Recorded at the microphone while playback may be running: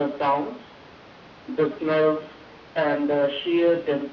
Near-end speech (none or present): none